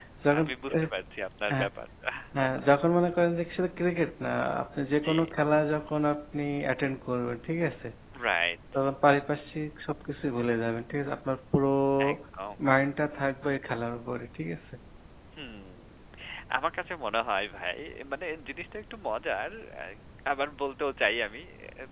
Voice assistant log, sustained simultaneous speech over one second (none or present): none